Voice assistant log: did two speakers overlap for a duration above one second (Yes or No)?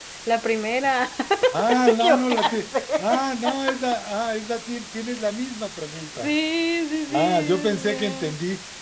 Yes